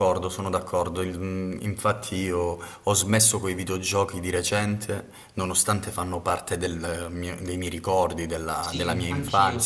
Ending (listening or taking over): taking over